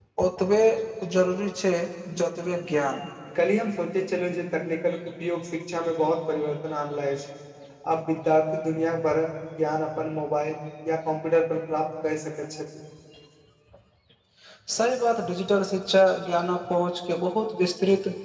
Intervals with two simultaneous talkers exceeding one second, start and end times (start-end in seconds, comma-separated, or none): none